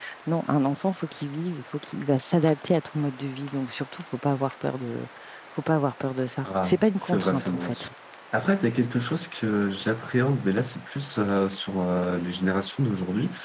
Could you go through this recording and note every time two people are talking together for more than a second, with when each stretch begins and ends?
6.4-7.9

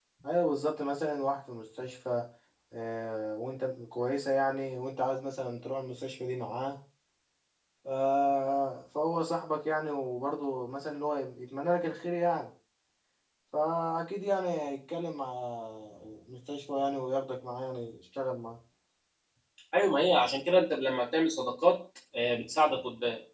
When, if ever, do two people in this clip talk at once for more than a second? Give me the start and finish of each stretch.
none

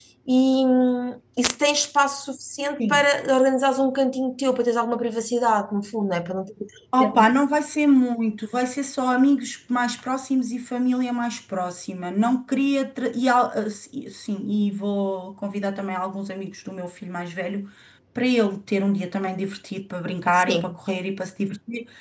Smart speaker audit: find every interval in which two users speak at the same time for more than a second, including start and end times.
none

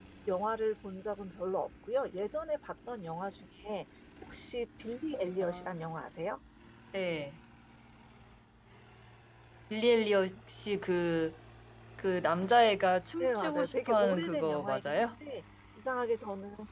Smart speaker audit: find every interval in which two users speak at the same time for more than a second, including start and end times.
13.2-15.1

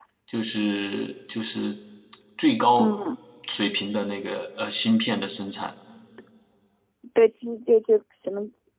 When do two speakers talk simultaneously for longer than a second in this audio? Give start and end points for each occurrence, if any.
none

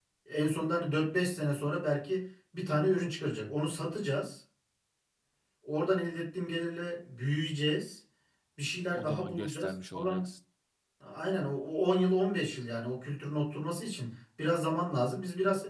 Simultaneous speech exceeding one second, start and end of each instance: 8.9-10.3

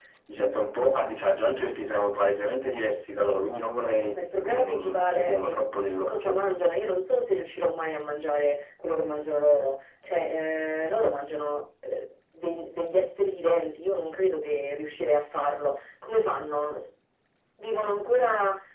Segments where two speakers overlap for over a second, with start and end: 4.1-5.6

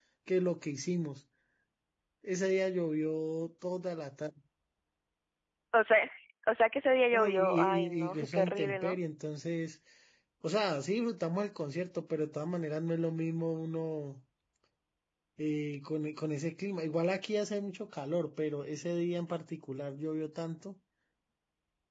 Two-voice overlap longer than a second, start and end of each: 7.1-9.0

